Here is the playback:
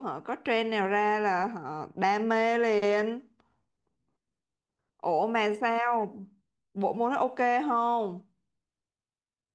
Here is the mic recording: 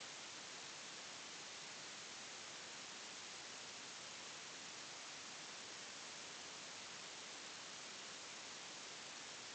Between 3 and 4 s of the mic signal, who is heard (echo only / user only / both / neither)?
neither